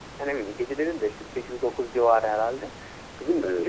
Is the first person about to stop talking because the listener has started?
No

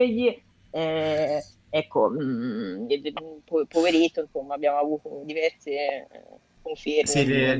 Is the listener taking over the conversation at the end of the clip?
Yes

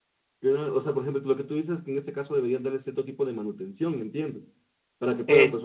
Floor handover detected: No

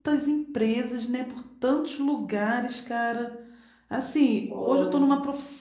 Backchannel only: Yes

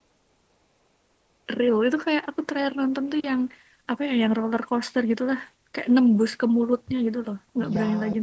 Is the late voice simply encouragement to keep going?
No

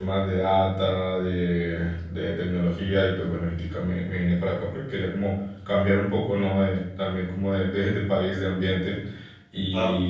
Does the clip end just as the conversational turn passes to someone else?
No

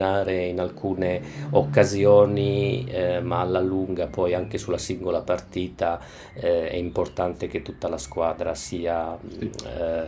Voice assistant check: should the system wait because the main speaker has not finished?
Yes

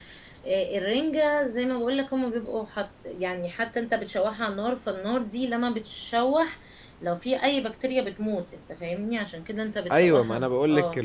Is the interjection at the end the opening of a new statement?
Yes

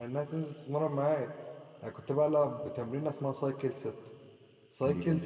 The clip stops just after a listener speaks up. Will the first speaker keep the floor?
Yes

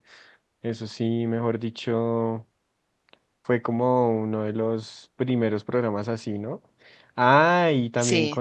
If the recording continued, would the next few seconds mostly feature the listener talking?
No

